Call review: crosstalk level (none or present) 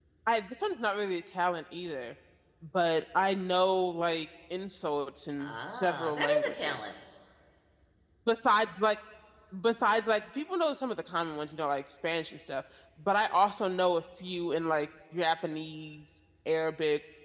present